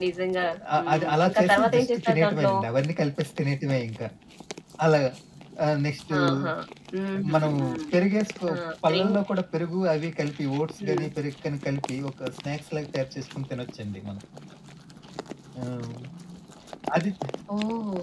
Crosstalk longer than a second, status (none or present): present